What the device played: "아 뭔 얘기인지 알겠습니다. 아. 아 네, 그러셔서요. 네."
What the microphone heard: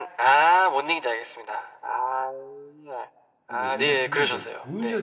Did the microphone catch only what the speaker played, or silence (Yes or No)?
No